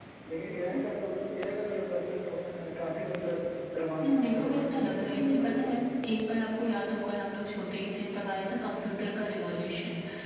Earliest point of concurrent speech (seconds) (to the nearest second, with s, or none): 4 s